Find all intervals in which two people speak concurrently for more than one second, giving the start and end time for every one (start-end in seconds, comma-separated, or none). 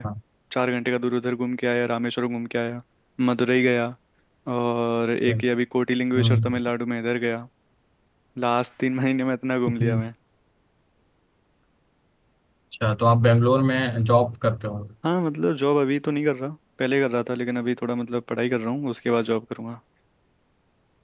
none